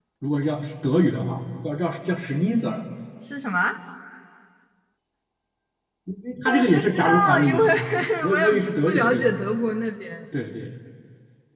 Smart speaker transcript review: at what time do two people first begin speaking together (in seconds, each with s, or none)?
6.4 s